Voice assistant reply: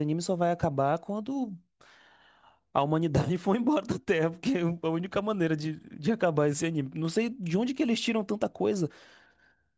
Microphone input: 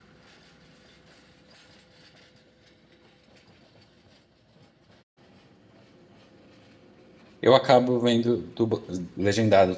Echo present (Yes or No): No